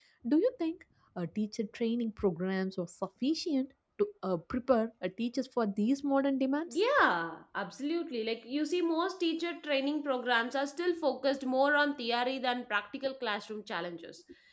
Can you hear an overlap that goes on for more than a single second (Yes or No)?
No